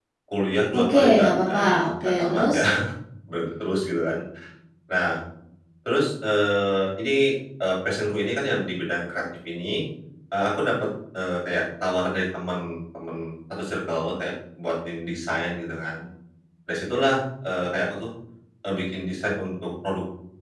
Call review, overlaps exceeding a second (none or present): present